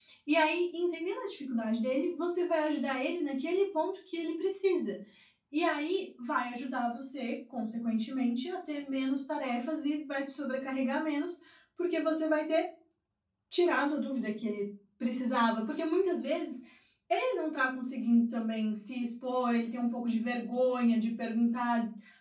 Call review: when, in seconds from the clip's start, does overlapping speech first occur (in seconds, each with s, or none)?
none